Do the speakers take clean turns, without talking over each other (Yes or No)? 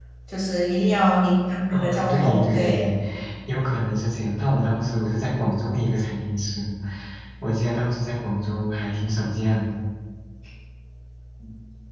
No